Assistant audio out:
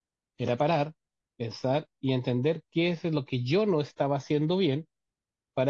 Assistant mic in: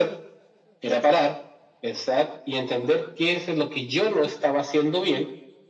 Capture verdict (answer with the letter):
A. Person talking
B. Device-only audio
B